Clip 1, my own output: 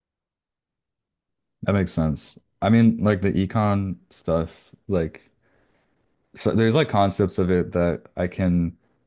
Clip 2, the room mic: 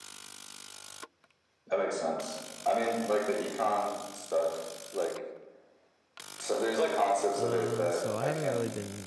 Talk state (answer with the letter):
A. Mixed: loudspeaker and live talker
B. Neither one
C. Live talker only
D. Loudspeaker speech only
A